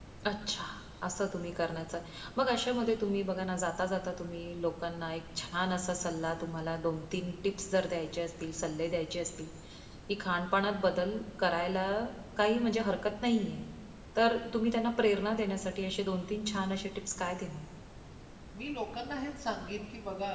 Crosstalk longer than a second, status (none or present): none